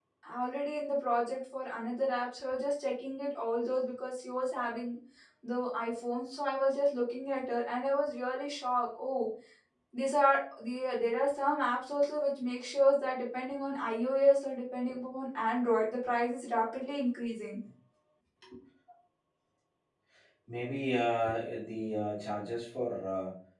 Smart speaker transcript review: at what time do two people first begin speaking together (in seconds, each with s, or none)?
none